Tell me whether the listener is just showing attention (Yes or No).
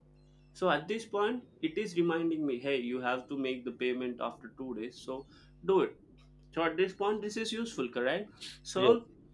Yes